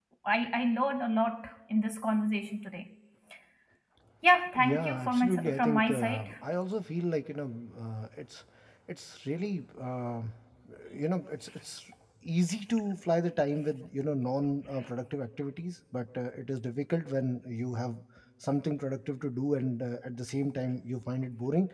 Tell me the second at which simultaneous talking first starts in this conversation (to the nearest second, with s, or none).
5 s